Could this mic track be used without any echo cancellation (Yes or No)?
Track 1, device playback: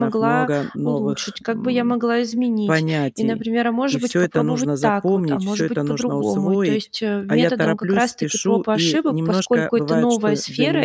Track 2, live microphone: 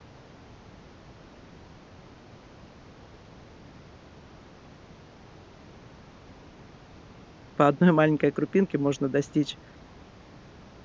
Yes